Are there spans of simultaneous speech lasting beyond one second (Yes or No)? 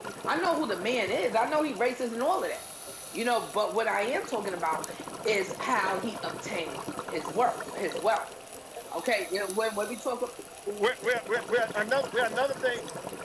No